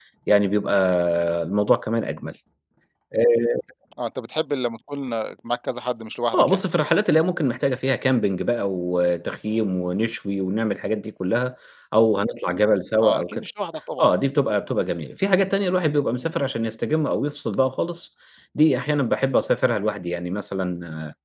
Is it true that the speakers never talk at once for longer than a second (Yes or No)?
Yes